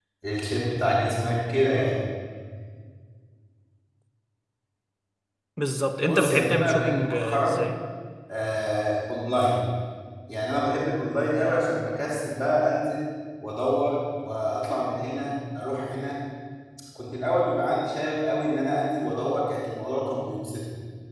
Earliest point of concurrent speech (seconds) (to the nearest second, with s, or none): 6 s